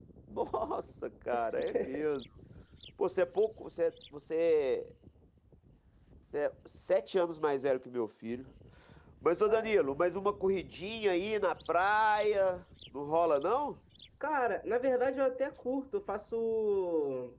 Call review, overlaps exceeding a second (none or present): none